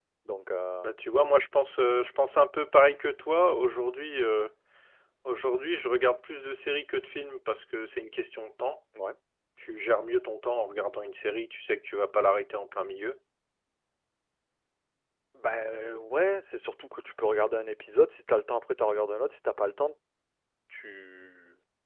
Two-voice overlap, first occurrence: none

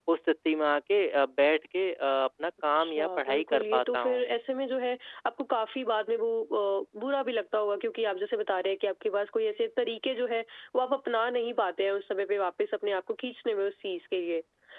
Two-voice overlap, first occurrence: 2.8 s

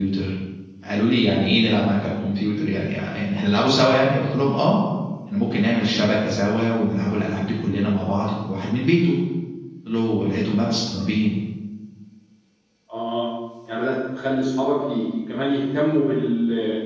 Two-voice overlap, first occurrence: none

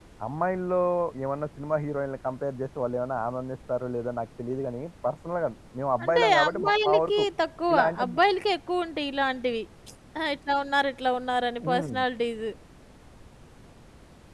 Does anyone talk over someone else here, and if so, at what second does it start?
6.0 s

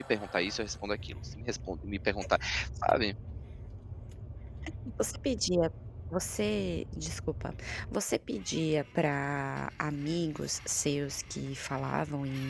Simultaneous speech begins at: none

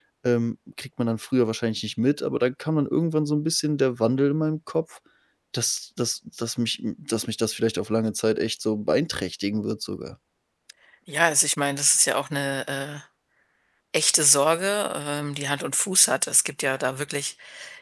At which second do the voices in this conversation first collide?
none

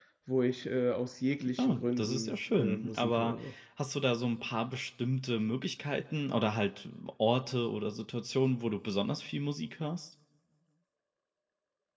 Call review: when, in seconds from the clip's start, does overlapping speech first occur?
1.6 s

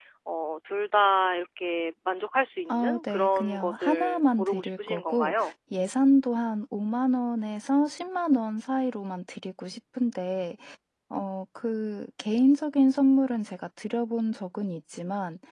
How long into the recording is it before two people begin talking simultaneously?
2.7 s

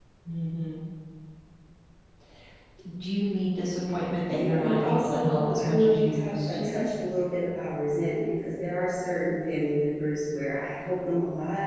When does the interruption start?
4.3 s

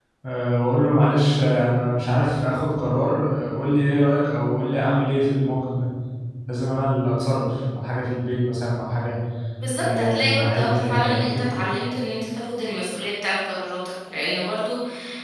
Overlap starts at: 9.8 s

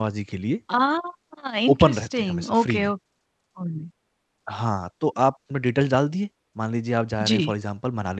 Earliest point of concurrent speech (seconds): 1.7 s

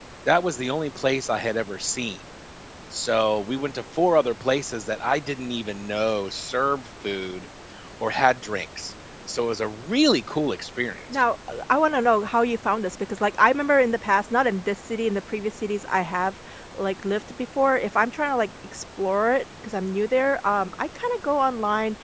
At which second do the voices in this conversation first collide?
none

